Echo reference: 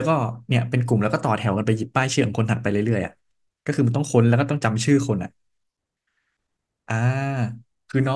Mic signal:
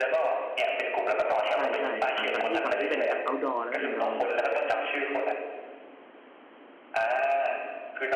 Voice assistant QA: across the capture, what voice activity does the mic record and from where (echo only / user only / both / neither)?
both